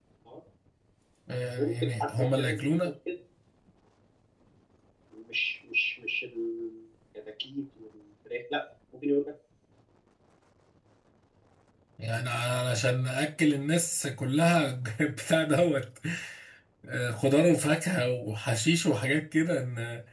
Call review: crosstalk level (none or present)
present